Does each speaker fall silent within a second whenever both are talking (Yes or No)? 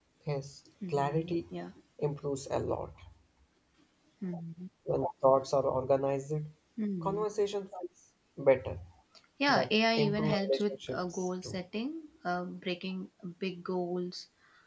No